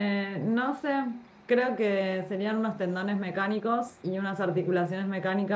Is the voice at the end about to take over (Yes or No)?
No